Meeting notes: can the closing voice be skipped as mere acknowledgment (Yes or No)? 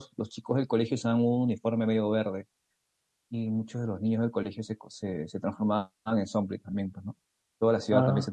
Yes